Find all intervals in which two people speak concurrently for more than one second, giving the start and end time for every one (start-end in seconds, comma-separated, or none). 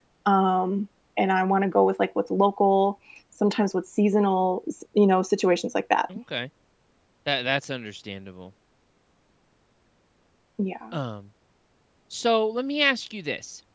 none